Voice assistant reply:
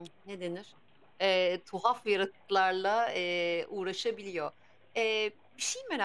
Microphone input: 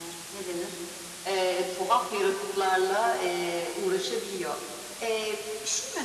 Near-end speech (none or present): none